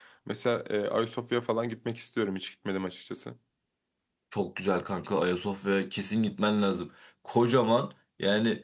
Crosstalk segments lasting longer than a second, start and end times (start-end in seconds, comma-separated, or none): none